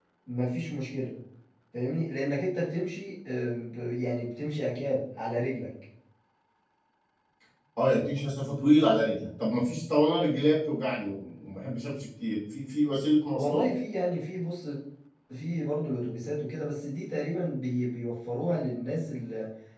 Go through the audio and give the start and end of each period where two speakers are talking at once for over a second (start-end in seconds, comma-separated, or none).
none